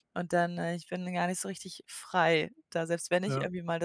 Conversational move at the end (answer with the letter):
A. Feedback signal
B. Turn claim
A